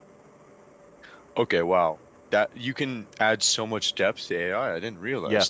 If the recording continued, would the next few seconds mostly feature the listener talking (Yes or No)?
Yes